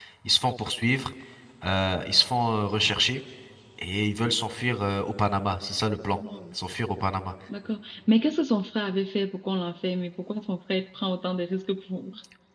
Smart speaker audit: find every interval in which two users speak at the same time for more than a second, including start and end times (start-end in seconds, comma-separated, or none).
none